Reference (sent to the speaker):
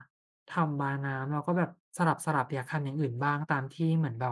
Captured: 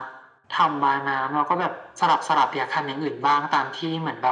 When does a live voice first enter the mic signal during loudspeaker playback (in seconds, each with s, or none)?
none